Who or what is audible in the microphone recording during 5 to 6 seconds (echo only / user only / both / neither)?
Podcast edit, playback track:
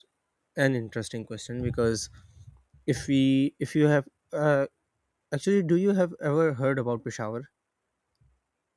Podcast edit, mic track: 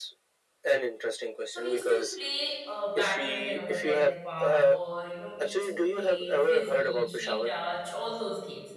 both